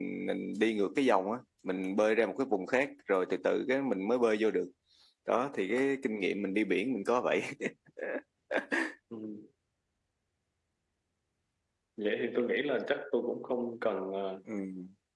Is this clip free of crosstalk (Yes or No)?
Yes